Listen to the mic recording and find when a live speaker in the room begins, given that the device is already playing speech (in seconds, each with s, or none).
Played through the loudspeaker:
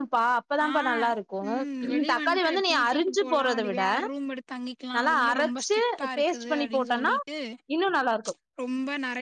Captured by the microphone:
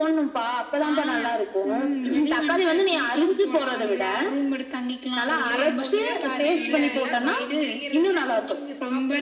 5.3 s